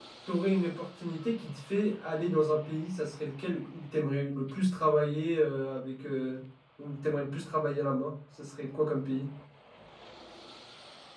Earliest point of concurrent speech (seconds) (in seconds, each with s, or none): none